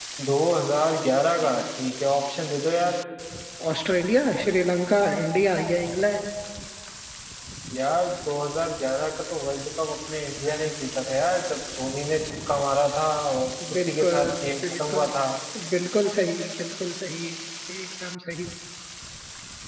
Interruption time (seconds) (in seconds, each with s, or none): 13.6 s